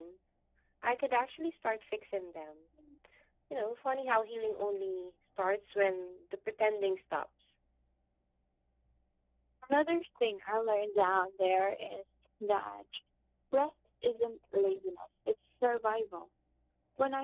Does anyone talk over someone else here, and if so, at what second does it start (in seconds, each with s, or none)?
none